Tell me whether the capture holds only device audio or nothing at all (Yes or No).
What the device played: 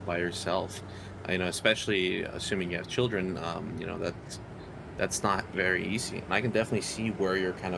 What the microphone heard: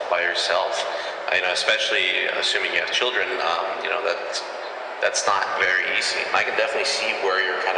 Yes